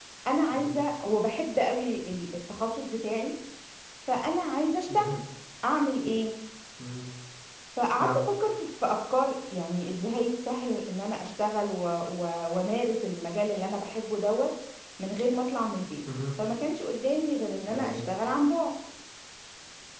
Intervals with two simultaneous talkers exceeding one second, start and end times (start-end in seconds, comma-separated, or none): none